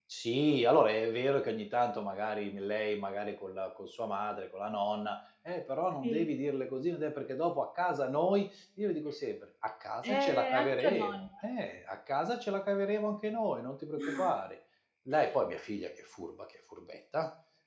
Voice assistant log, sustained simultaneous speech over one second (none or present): present